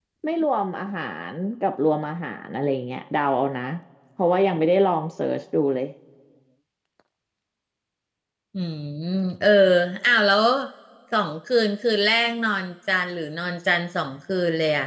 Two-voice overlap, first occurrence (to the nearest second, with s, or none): none